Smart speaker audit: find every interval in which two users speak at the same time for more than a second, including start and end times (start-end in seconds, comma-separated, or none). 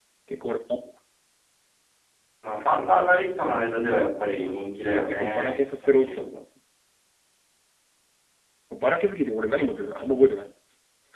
4.9-6.2